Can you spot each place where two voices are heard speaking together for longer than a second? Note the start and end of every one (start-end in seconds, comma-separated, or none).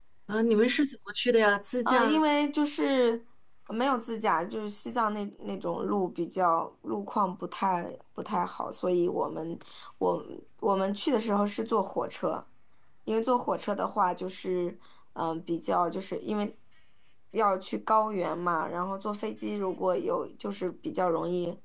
none